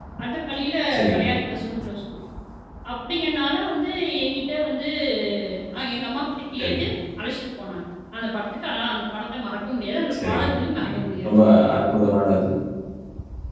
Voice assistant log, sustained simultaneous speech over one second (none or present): present